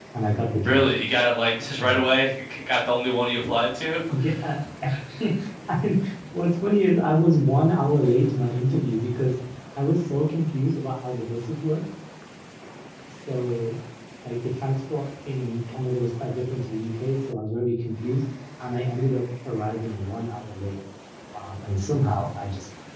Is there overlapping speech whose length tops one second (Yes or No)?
No